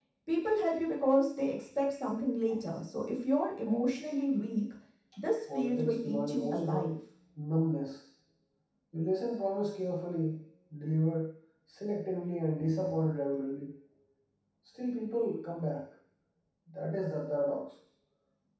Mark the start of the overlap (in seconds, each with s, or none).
5.5 s